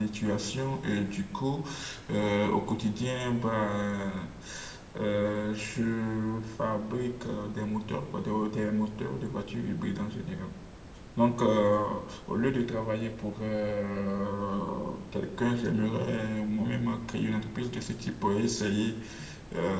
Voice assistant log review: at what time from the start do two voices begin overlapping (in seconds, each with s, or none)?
none